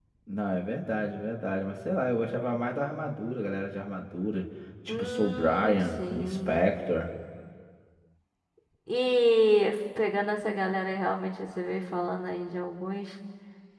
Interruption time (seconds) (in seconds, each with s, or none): 4.9 s